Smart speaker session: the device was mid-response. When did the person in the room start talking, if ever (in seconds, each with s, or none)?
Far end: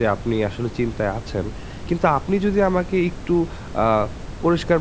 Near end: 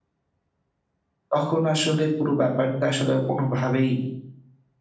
1.3 s